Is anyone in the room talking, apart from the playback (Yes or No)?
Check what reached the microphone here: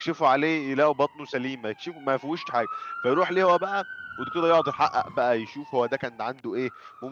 Yes